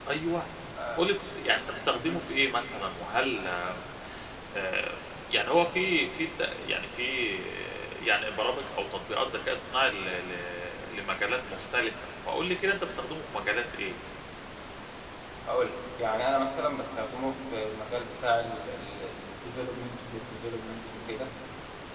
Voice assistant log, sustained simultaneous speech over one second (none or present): none